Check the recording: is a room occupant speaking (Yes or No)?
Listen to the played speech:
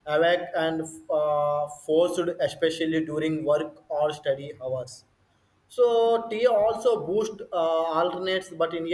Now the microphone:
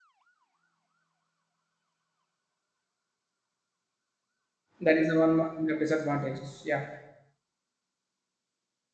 Yes